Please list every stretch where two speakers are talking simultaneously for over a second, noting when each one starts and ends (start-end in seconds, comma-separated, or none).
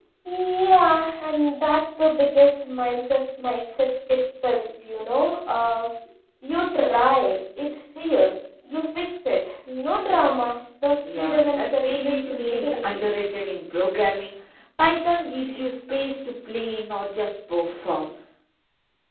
11.2-13.1